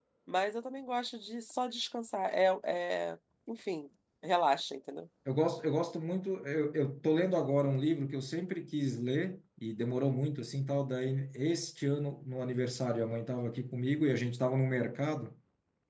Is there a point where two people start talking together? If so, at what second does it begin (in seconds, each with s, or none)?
none